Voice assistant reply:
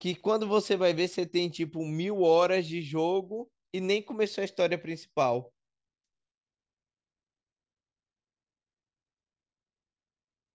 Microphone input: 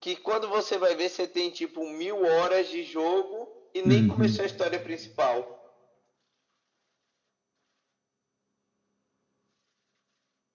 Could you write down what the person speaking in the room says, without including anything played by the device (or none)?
Uhum,